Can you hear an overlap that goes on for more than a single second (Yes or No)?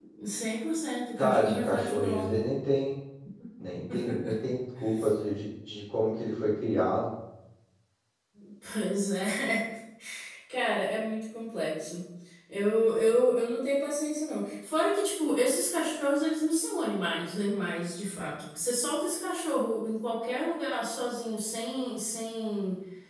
Yes